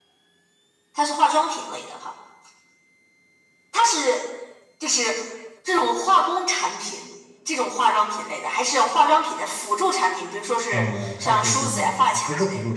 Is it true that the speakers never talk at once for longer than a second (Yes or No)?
No